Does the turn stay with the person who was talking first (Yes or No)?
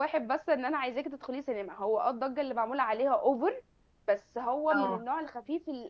Yes